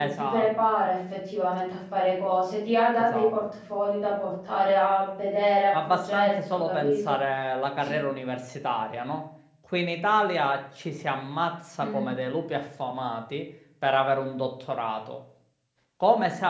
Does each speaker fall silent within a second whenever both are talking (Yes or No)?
No